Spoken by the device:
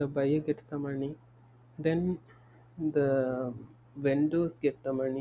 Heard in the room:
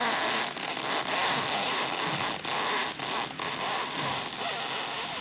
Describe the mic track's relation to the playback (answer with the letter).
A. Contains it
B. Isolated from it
B